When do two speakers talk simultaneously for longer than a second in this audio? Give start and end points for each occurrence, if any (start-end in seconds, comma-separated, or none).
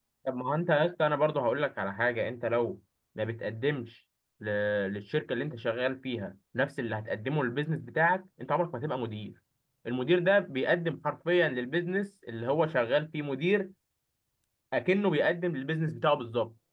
none